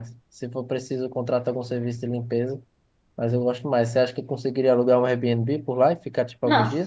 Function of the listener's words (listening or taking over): taking over